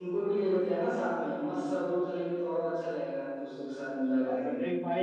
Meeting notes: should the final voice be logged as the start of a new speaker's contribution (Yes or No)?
Yes